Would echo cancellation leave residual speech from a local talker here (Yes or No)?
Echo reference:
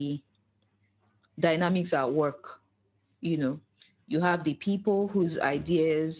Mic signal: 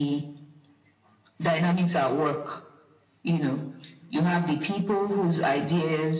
No